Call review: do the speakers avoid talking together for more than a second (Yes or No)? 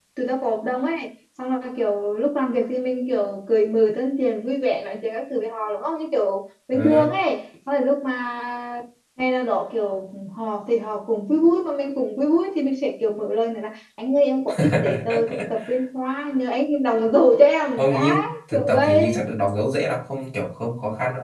No